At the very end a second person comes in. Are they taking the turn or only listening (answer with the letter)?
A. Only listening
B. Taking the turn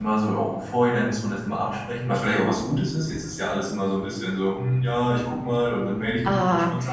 B